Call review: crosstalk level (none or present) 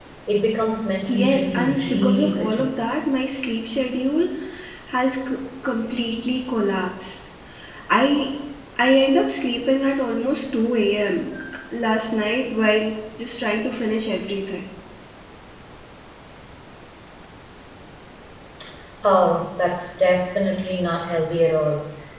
present